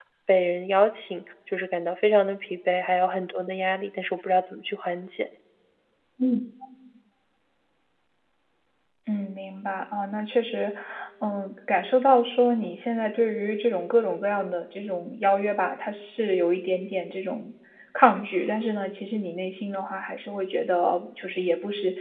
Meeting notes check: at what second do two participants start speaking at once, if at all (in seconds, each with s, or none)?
none